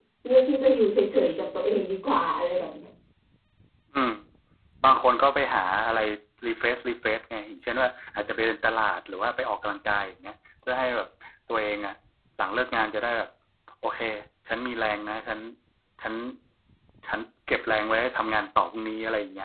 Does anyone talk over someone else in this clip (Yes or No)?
No